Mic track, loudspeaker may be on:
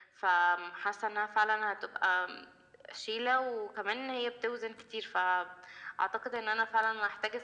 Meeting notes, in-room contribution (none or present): none